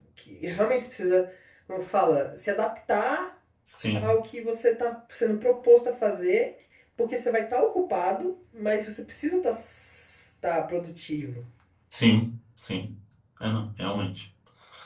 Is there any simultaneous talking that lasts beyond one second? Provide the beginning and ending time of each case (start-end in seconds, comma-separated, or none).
none